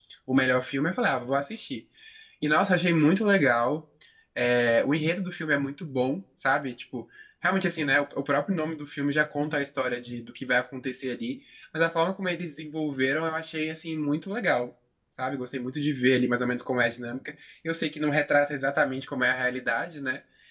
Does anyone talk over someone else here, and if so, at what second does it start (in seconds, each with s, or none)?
none